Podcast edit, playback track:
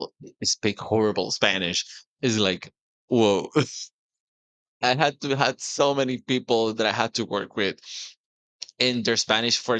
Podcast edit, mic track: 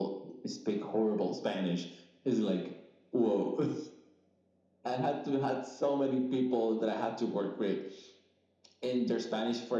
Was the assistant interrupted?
No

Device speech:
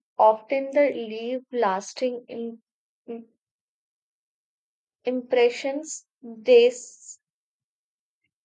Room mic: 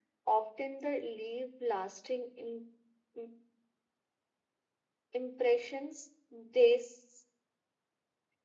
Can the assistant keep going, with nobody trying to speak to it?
Yes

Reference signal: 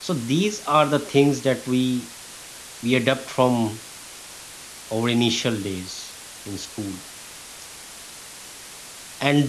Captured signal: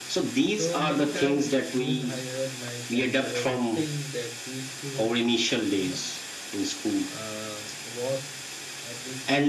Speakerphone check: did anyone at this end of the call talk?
Yes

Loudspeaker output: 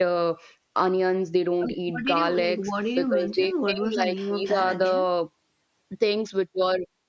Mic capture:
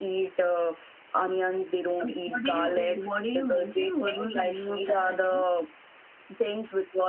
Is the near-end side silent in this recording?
Yes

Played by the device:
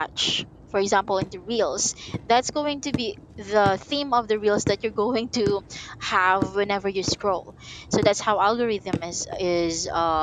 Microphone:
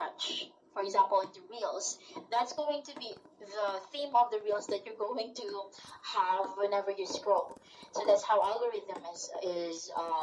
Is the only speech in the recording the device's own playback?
Yes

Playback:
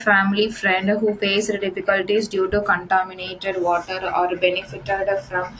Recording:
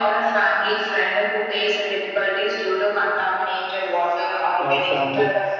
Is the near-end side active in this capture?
Yes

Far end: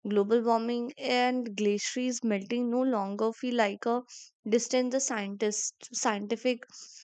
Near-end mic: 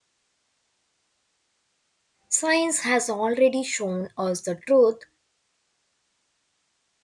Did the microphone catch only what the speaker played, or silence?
No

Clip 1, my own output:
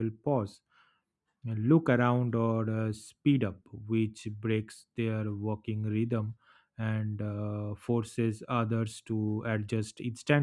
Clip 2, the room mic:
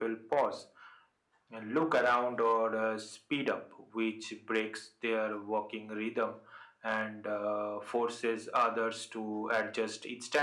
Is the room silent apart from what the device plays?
Yes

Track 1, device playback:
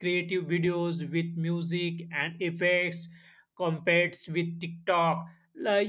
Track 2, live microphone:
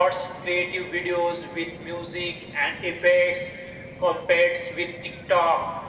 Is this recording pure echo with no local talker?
Yes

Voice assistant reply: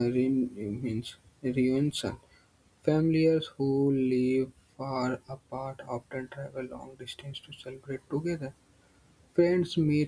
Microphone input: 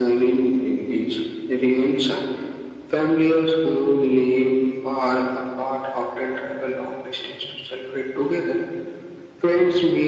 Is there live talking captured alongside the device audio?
No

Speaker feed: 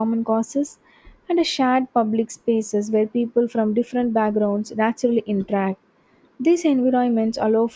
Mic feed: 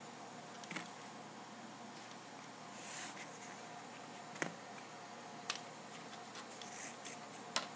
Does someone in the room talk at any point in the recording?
No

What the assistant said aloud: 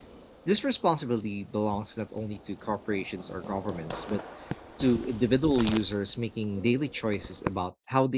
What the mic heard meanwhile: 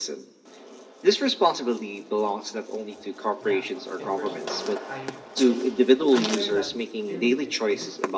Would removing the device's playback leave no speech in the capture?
No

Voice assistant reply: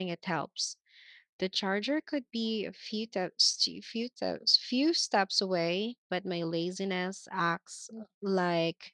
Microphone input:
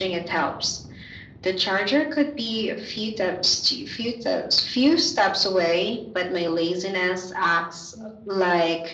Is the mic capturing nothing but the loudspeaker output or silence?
Yes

